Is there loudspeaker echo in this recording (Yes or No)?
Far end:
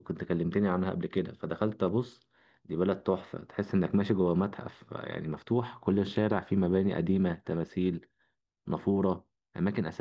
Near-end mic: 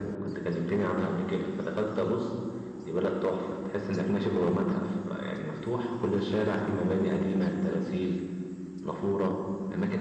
Yes